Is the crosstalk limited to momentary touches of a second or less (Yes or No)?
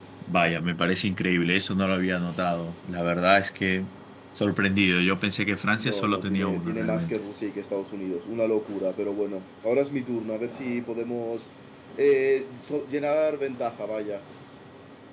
No